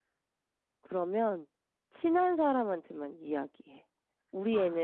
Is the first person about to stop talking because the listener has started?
No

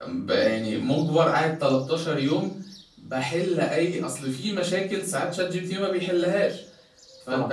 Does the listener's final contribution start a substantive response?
No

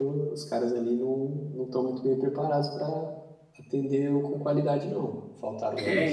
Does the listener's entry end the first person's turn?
Yes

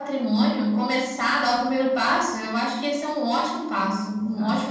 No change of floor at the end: No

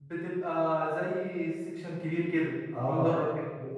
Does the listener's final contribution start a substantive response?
Yes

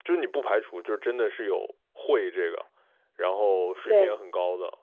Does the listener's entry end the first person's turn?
No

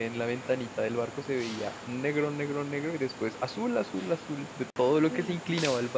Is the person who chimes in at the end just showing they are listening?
Yes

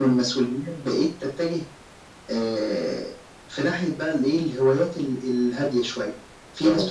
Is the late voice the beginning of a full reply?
No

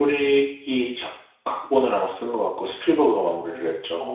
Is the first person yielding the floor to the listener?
Yes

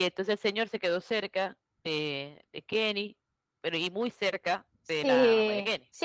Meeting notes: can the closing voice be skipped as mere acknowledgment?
No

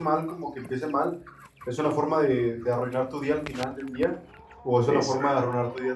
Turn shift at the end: No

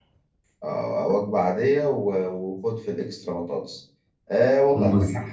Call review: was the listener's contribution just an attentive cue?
Yes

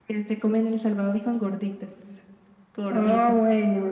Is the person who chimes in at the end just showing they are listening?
No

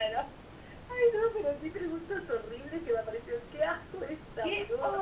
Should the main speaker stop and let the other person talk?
Yes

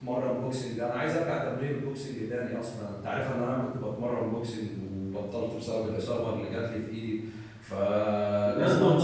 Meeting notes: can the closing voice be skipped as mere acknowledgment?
No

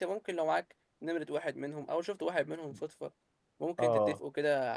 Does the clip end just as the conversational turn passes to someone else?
No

